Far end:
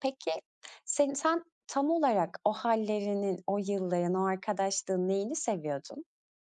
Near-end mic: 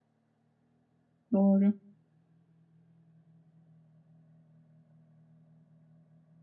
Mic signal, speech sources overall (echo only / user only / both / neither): user only